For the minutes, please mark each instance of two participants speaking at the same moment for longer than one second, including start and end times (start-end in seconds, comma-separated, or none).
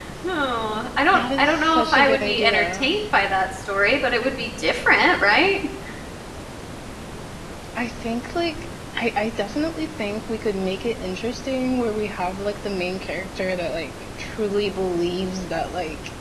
1.1-2.9